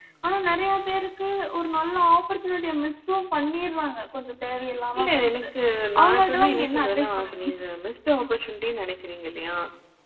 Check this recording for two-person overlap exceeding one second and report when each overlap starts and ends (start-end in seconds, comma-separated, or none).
6.0-7.5